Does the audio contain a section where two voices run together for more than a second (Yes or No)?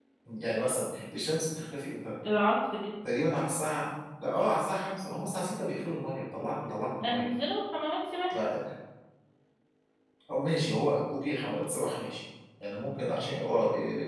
No